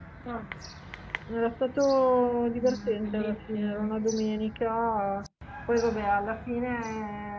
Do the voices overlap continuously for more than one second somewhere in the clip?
Yes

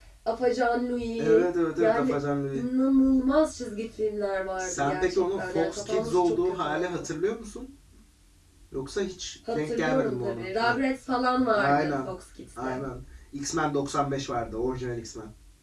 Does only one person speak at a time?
No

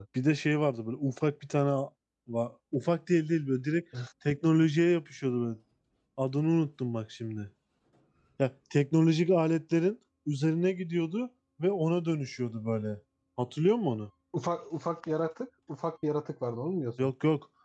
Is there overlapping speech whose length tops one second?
No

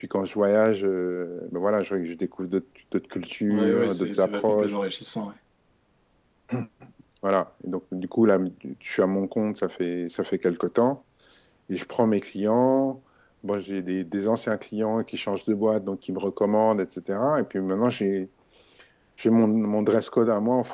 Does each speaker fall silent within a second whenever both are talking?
No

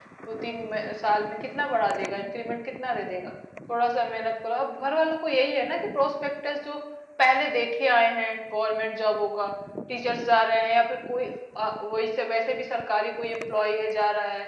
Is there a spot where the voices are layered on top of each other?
No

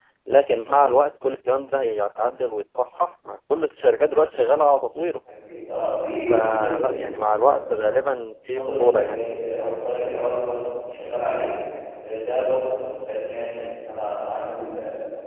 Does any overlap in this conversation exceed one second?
Yes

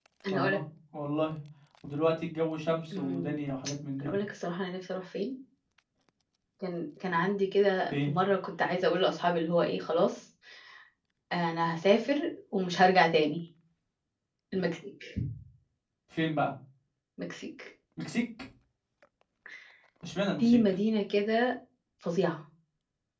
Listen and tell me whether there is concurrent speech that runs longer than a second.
No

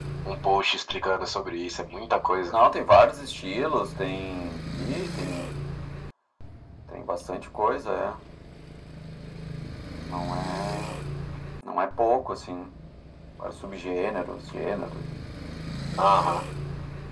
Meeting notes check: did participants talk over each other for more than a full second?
No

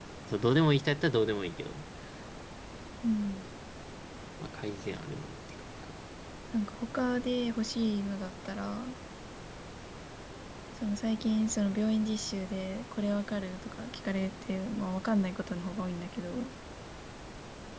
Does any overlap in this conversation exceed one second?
No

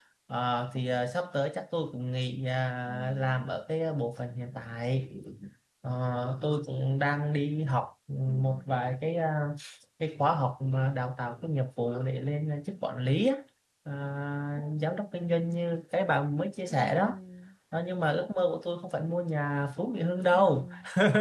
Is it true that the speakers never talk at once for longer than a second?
Yes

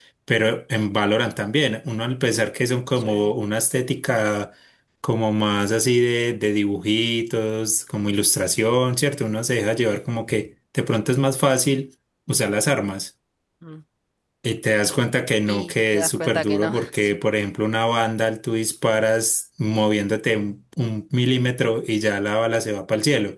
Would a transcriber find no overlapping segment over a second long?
No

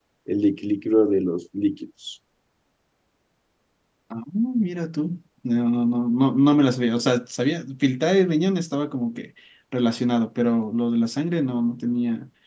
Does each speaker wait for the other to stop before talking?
Yes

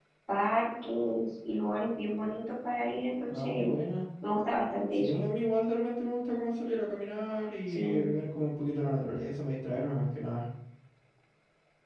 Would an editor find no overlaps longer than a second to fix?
Yes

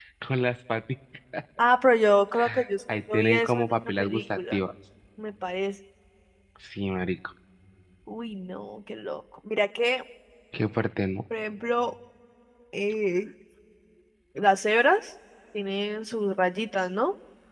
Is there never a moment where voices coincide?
No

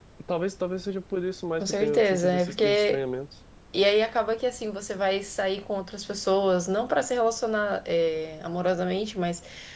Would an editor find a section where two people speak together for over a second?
Yes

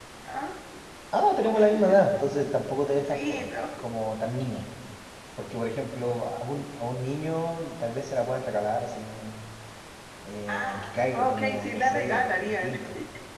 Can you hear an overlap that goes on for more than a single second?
Yes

